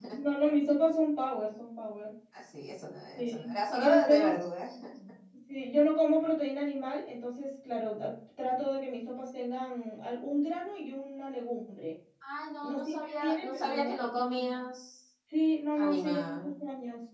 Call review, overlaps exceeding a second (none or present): present